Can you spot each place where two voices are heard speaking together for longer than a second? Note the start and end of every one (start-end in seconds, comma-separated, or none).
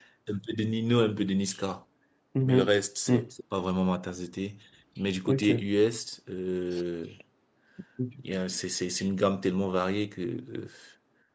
none